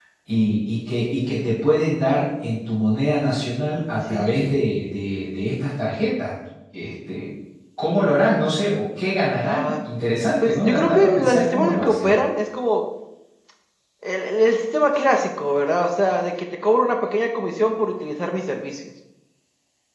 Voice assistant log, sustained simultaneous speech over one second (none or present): present